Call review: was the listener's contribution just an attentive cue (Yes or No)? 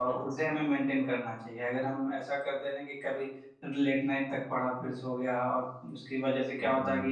Yes